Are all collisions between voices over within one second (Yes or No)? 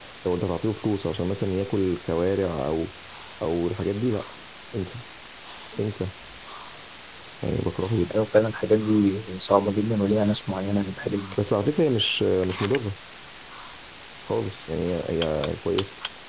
Yes